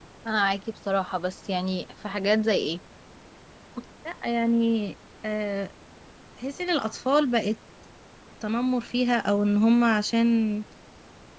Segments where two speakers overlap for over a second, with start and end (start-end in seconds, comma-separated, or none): none